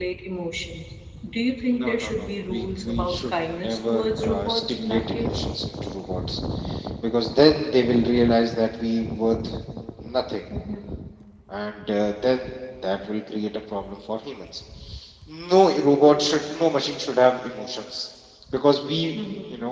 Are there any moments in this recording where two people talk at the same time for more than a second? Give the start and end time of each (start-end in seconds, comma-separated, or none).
1.8-5.4